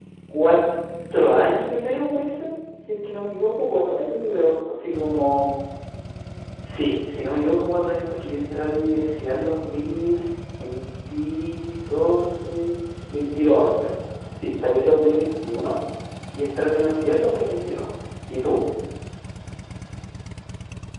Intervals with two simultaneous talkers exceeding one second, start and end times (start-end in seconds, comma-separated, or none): none